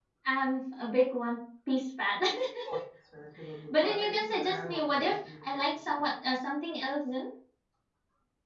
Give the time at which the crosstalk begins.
3.7 s

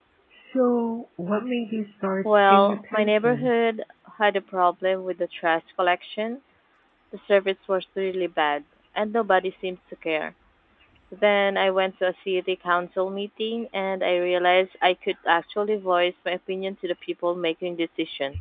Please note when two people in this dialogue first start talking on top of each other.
2.2 s

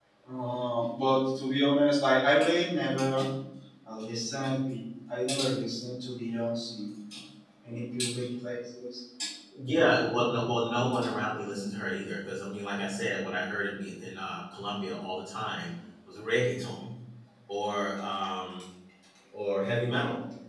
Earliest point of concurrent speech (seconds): none

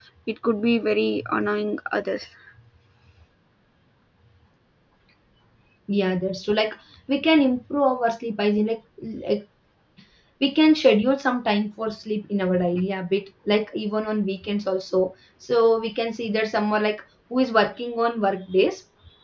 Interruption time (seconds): none

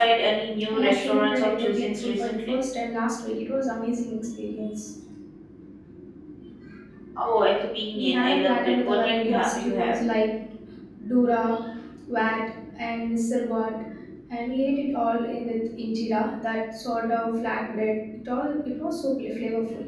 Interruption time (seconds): 0.7 s

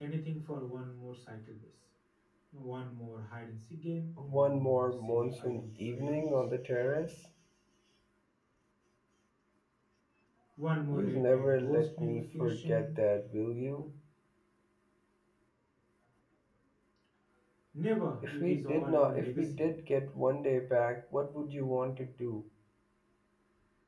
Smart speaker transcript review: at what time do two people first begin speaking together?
4.3 s

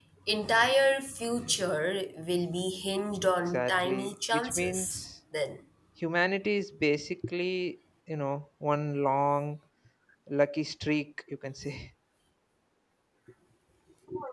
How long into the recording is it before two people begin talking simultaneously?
3.5 s

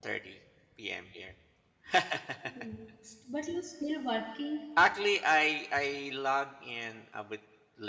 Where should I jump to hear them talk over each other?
none

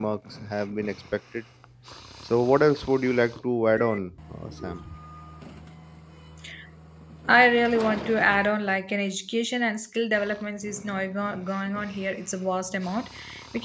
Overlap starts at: none

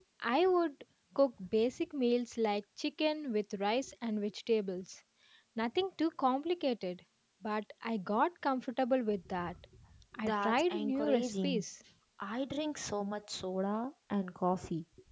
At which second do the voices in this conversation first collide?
10.2 s

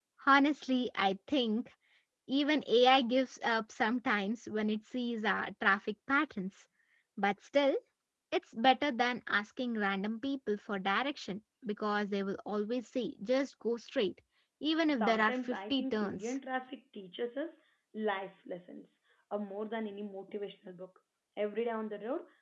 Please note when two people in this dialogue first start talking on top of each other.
15.0 s

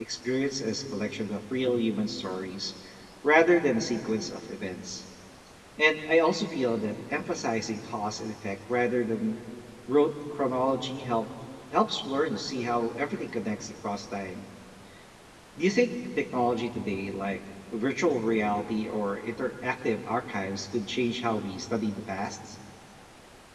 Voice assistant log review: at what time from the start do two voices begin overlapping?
none

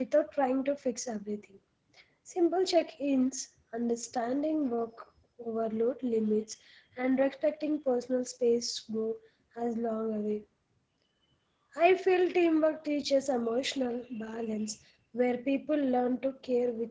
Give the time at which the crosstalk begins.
none

